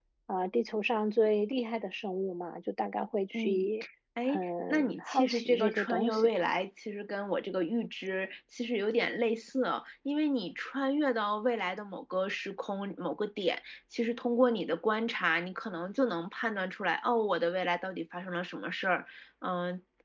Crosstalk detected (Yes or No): Yes